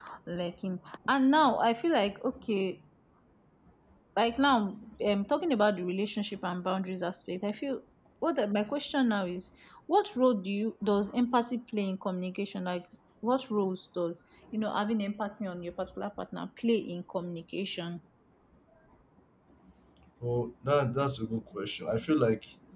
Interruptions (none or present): none